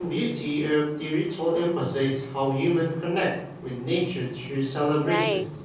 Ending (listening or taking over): taking over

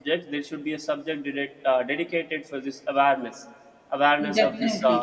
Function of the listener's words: listening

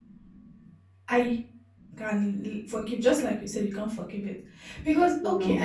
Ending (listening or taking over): listening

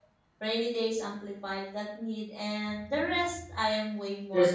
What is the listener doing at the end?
taking over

